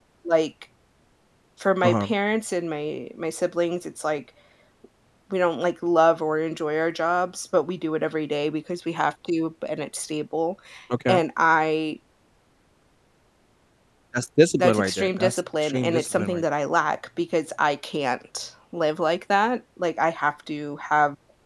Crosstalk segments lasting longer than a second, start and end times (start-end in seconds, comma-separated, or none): 14.6-16.4